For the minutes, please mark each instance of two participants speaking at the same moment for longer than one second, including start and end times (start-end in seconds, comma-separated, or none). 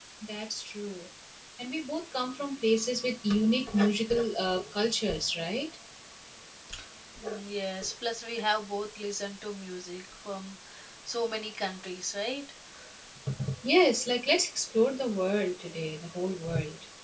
none